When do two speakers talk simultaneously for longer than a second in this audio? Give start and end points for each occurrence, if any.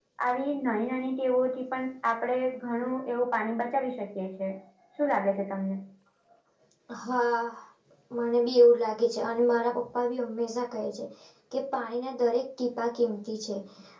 none

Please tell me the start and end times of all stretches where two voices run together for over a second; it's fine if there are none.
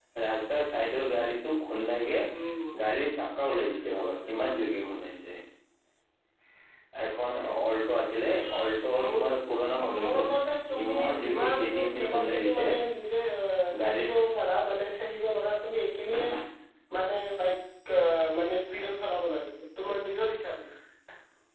10.8-12.6

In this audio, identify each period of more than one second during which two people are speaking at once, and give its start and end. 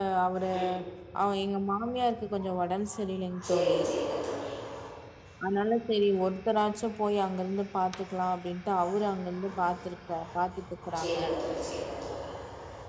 none

